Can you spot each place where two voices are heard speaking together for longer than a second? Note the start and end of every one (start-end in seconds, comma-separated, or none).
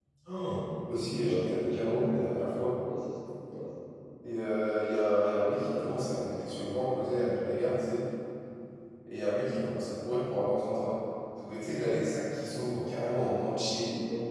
none